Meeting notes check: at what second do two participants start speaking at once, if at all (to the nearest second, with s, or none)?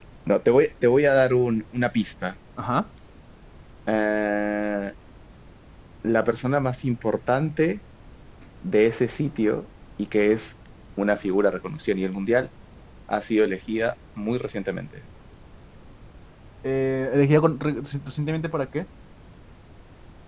none